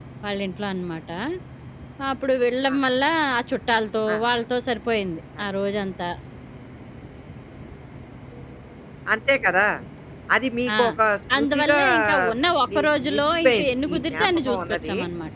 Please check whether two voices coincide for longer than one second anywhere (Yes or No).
Yes